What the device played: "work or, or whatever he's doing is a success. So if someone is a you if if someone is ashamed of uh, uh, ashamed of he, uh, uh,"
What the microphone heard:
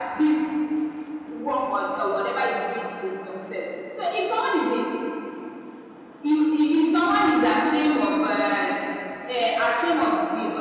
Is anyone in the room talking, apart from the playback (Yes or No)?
No